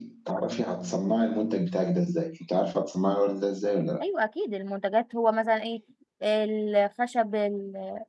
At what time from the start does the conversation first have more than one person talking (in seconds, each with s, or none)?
none